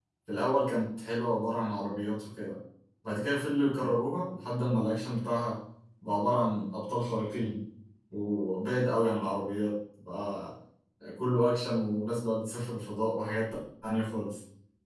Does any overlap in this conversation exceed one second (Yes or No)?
No